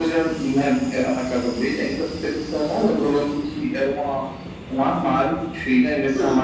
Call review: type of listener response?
listening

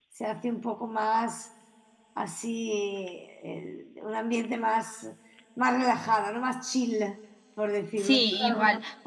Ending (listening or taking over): taking over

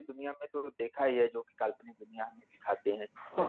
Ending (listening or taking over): taking over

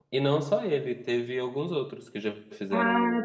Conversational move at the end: taking over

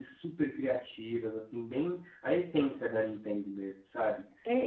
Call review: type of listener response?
taking over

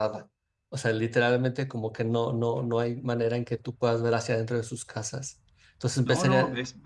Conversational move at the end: taking over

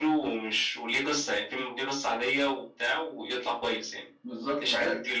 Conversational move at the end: taking over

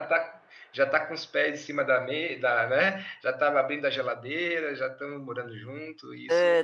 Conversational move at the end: taking over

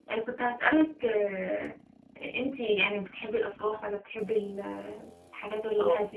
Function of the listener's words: taking over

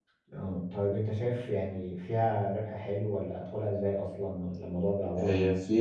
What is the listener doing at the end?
taking over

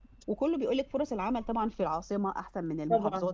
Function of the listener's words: listening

